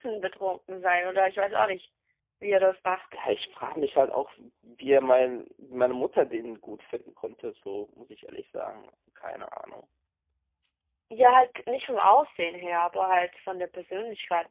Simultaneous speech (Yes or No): No